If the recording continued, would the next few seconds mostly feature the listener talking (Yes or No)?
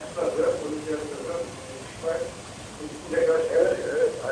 Yes